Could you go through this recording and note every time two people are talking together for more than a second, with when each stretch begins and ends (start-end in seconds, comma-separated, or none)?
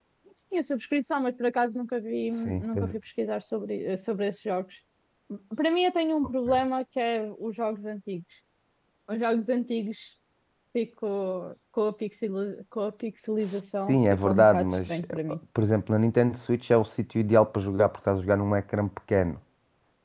13.9-15.2